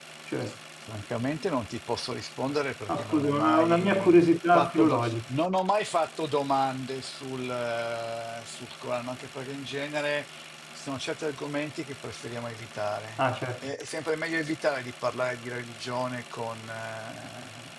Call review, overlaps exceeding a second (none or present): present